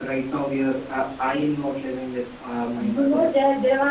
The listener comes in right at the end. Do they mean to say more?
Yes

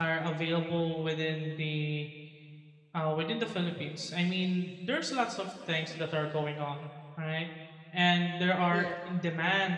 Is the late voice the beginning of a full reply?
No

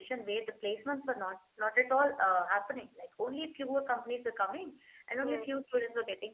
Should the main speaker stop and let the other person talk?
No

